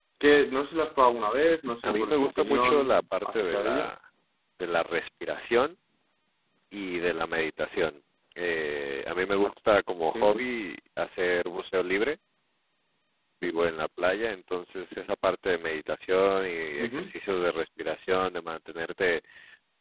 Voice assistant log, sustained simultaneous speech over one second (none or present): present